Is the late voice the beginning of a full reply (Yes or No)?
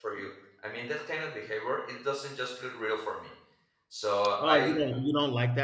Yes